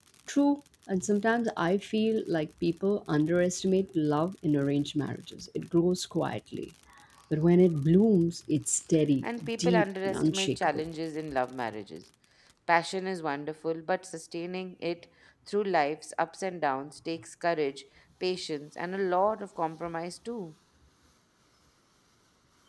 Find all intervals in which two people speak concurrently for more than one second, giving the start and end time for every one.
9.2-10.8

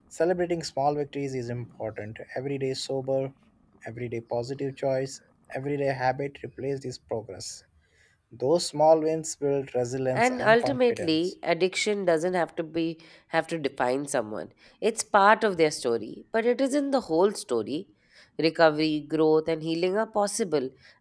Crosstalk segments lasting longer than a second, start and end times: 10.1-11.3

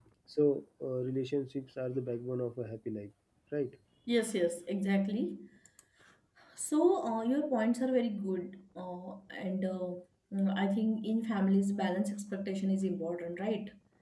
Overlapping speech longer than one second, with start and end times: none

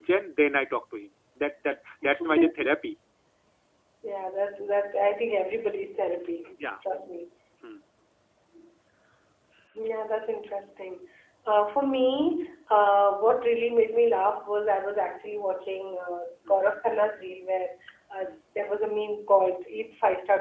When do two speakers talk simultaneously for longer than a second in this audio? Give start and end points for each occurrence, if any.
none

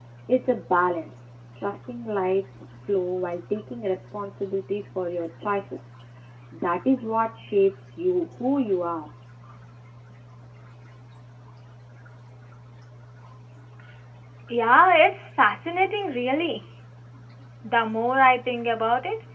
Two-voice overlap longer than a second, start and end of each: none

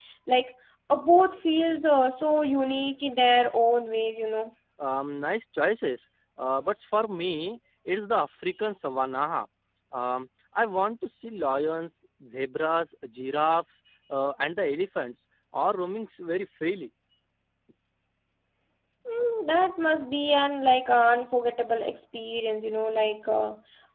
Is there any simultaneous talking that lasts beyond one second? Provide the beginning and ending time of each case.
none

